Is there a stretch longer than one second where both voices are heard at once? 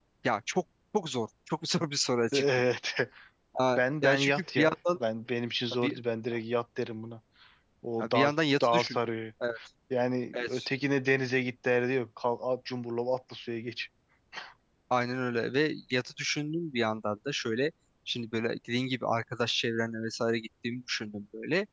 Yes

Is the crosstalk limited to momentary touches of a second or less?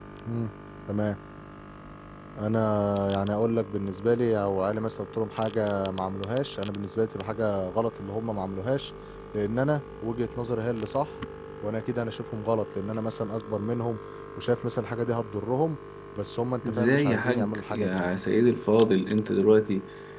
No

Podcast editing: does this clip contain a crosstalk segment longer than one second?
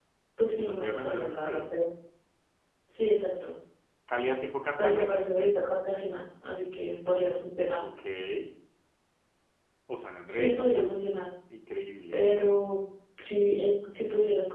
Yes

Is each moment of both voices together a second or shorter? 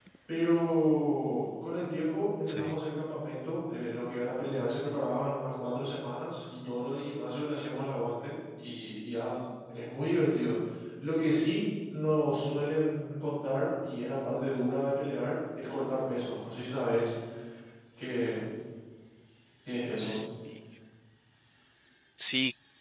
Yes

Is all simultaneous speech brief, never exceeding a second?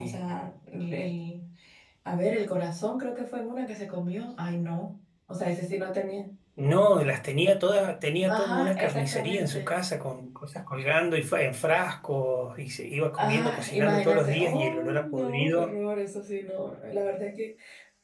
No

